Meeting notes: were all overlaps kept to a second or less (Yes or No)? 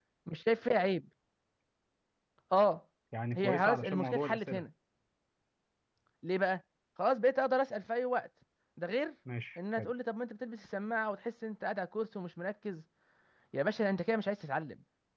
No